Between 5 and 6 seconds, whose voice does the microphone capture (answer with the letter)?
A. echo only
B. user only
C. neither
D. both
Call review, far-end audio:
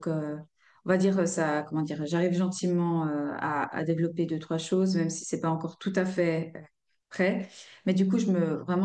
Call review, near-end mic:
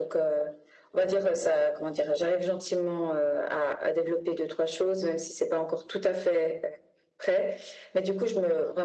A